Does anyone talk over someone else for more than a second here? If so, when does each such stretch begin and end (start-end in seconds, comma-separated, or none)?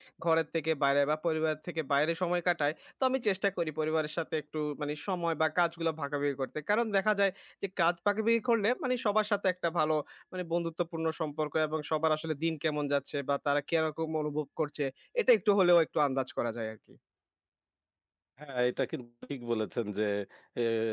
none